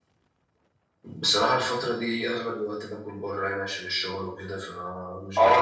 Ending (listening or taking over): taking over